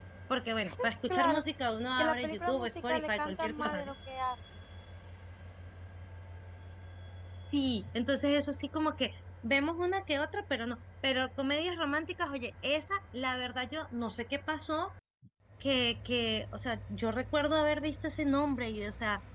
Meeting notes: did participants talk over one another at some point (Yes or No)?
Yes